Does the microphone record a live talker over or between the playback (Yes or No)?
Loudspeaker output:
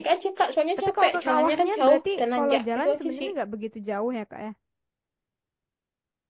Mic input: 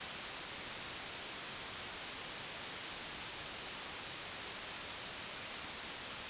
No